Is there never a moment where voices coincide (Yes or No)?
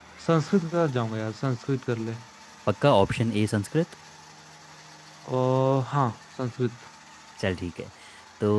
Yes